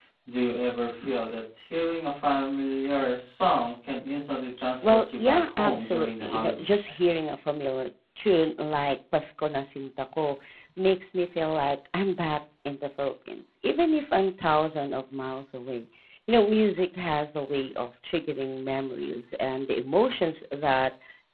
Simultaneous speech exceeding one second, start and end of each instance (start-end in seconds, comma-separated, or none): 4.8-6.9